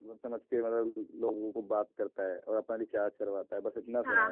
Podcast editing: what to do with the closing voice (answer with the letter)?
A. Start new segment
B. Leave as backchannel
A